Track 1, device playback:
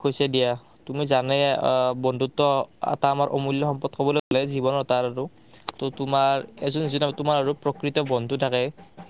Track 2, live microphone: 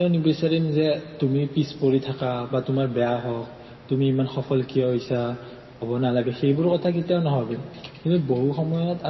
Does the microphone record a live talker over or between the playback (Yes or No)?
Yes